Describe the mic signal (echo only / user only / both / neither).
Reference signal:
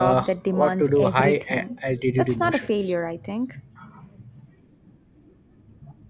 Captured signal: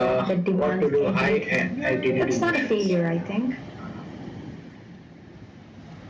both